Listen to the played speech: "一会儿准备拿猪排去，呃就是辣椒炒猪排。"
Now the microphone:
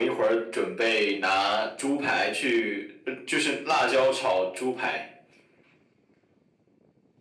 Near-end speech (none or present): none